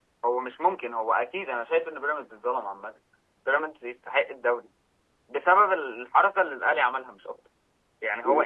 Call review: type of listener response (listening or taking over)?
listening